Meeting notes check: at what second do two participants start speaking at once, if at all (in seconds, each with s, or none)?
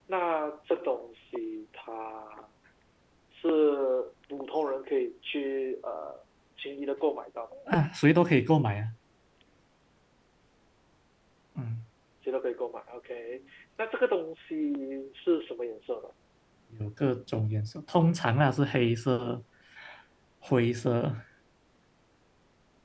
none